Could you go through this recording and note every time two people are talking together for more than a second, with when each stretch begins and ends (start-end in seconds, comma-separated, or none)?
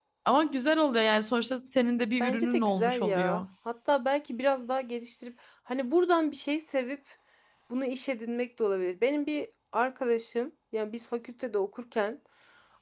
2.2-3.4